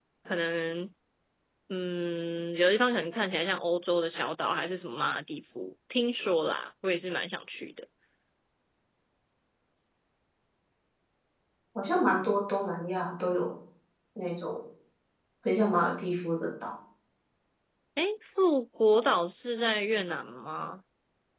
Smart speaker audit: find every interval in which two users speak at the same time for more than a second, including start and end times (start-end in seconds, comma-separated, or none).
none